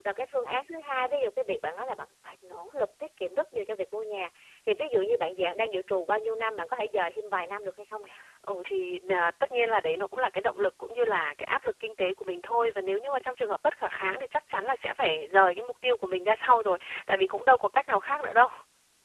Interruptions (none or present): none